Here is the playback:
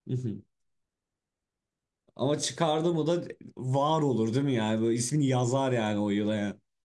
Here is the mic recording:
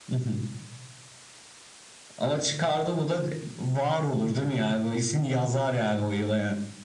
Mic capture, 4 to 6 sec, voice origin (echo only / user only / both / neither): echo only